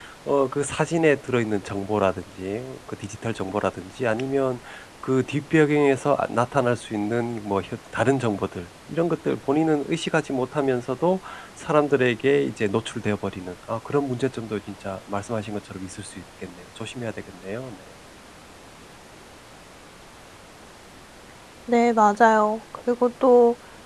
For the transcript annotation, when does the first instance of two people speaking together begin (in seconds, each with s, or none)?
none